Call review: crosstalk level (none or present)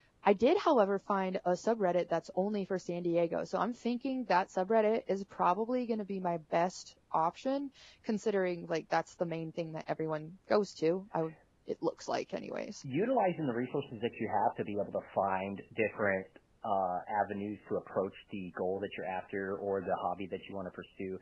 none